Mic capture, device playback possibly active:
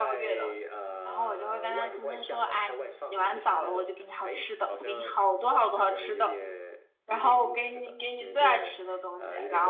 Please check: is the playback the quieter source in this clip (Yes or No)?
Yes